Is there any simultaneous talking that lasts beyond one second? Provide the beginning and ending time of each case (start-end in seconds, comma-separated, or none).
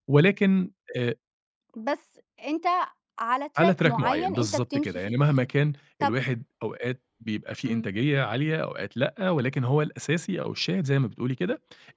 3.6-5.2